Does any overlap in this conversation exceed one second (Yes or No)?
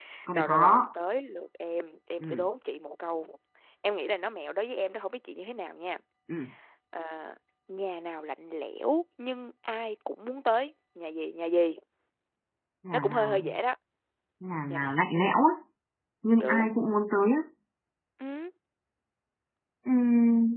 No